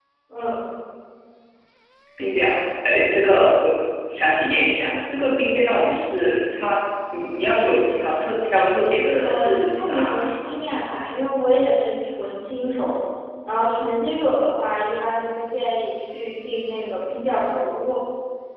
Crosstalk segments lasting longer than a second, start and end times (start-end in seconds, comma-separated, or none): 9.2-10.8